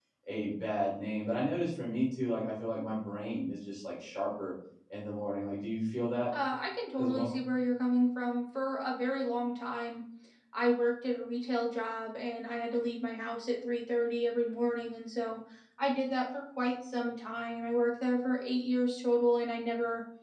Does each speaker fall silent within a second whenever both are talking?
Yes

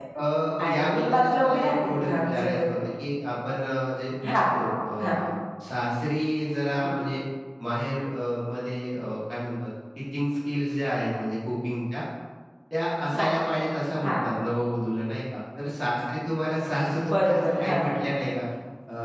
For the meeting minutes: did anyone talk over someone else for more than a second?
Yes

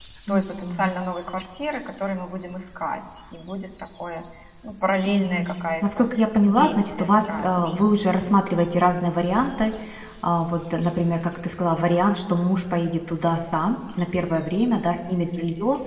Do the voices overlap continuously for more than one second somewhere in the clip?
Yes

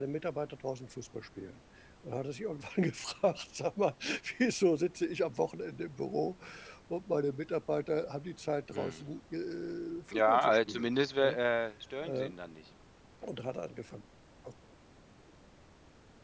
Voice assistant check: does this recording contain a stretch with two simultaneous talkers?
Yes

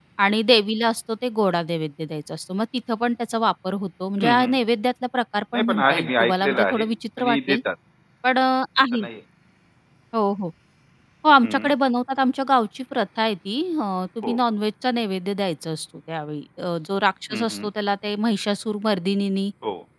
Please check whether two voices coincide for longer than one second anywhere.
Yes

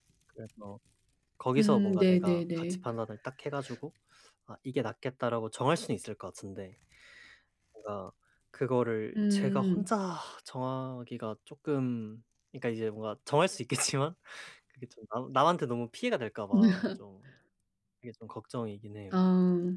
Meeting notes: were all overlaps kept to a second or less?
No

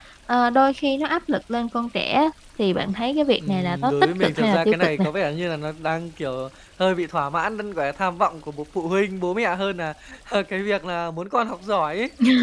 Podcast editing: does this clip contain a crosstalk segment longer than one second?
Yes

